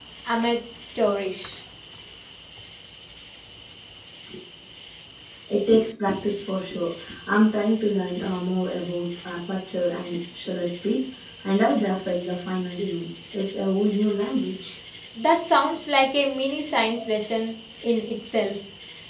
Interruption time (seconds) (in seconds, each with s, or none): none